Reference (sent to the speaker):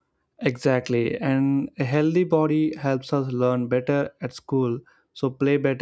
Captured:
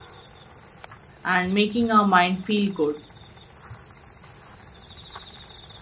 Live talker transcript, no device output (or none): and making our mind feel good.